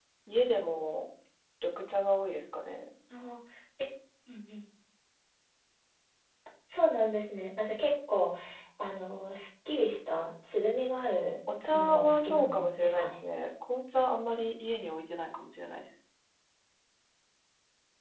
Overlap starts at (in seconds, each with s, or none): 11.7 s